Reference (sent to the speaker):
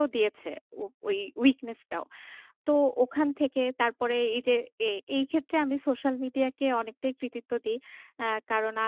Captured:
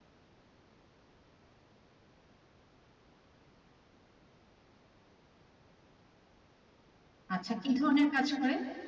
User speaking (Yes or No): Yes